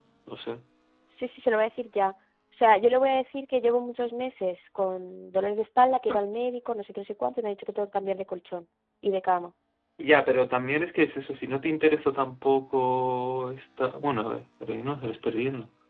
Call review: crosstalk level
none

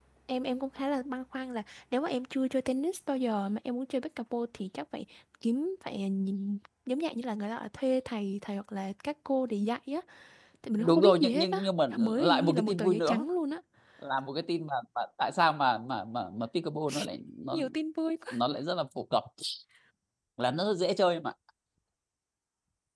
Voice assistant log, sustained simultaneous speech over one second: present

